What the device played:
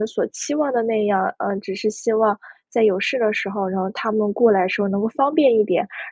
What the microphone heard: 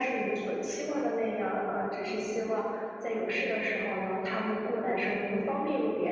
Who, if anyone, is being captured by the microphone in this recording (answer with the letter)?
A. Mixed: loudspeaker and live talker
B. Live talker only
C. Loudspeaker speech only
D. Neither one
C